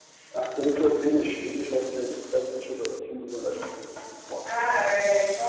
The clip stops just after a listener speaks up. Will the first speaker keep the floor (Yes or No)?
No